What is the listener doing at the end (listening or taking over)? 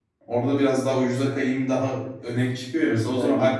listening